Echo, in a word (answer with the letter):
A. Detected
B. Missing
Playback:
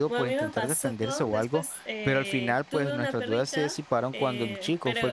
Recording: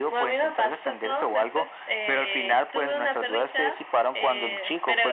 A